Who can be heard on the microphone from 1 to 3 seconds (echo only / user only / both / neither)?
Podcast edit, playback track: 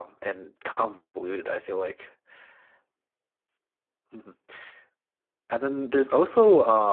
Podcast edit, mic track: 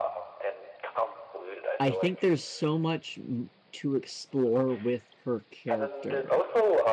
both